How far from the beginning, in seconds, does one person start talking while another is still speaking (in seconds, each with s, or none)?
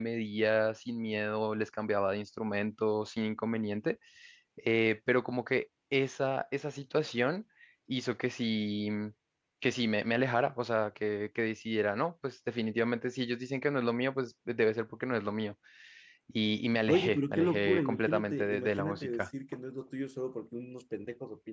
16.9 s